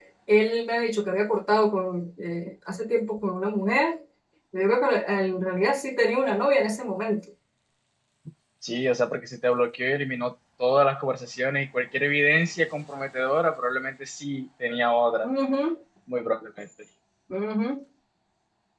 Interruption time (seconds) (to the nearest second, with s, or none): none